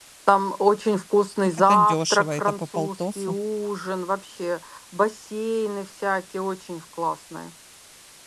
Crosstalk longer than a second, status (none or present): present